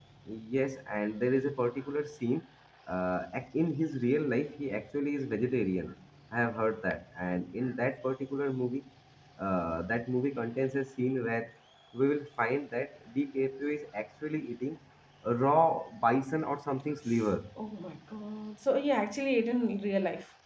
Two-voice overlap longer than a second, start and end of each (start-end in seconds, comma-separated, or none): none